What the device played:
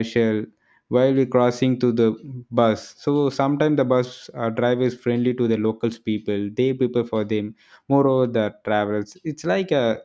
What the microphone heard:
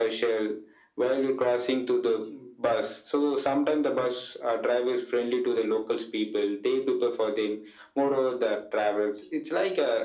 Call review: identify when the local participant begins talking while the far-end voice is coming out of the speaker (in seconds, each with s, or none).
none